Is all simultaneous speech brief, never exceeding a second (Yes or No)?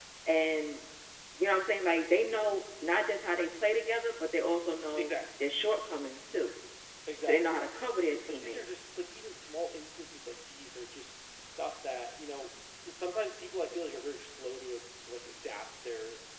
Yes